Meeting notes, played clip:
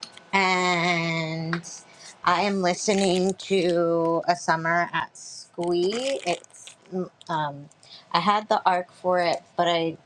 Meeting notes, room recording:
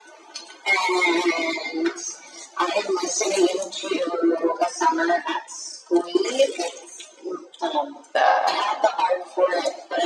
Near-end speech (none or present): present